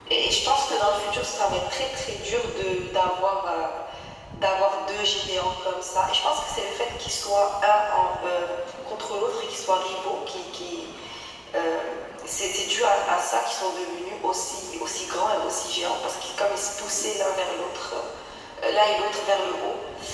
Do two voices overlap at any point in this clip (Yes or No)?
No